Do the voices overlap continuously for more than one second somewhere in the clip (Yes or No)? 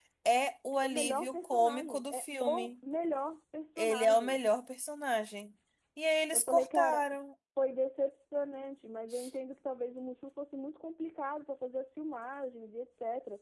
Yes